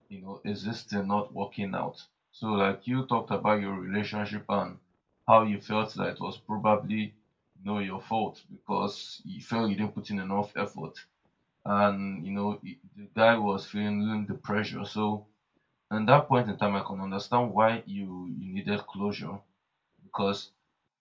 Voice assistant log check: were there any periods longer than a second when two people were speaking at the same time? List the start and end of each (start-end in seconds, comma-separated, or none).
none